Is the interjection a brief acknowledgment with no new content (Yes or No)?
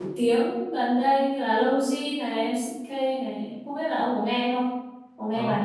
No